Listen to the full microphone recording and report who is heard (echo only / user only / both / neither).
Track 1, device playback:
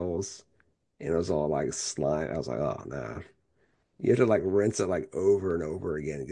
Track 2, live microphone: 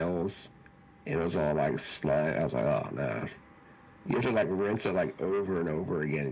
echo only